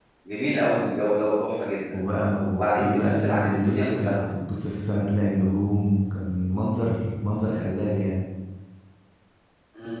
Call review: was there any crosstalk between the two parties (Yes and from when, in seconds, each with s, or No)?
Yes, from 2.5 s